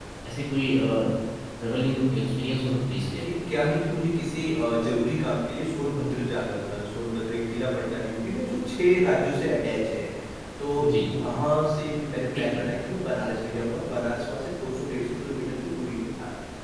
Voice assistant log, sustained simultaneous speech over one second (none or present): none